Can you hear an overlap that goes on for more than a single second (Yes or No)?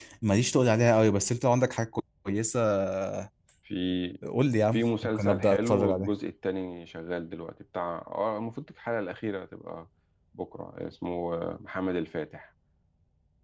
Yes